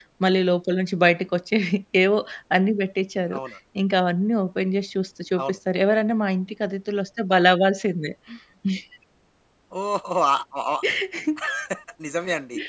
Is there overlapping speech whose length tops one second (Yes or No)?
No